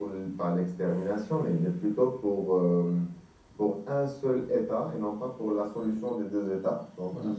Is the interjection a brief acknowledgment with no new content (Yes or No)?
Yes